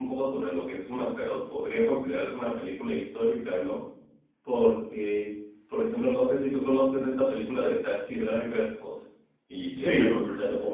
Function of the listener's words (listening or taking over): listening